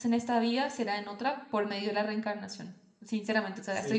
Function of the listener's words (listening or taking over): listening